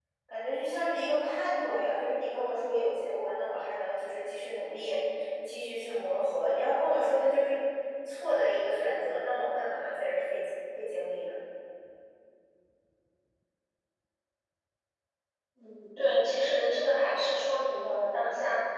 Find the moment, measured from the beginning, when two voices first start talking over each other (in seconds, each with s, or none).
none